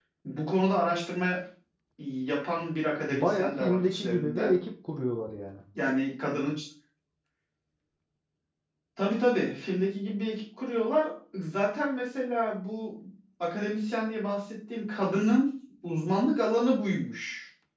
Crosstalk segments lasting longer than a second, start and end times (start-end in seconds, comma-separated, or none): 3.1-4.6